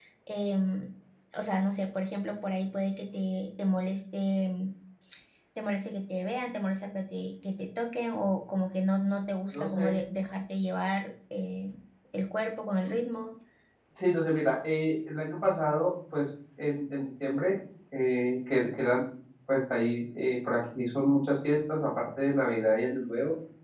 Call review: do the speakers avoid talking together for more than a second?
Yes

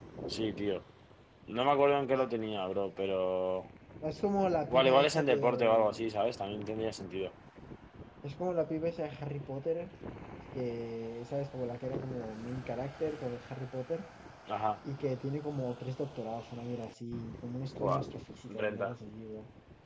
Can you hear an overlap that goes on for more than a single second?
Yes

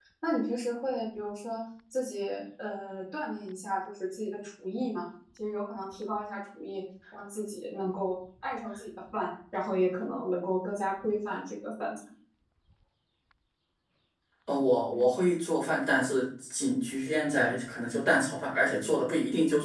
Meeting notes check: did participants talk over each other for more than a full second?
No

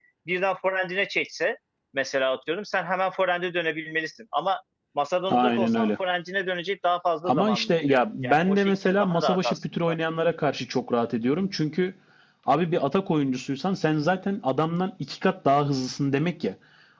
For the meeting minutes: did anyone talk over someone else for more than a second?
Yes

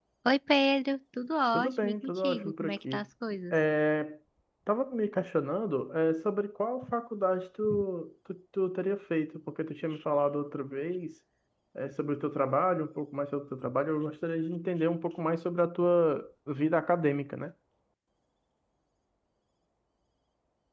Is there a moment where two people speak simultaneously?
Yes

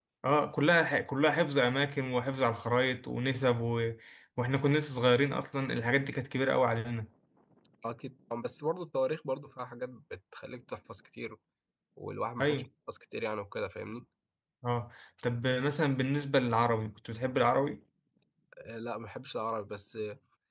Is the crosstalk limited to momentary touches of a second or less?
Yes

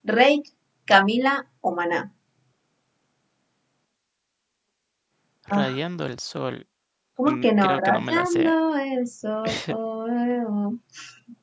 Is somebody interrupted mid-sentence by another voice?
Yes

